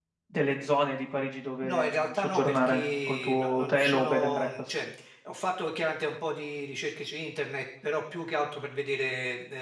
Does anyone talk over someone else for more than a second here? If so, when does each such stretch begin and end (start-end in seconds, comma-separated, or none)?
1.6-4.7